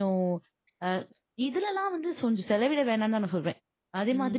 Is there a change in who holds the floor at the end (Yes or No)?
Yes